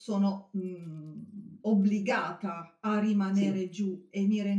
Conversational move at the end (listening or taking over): listening